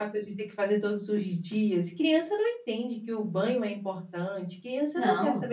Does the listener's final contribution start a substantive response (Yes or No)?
No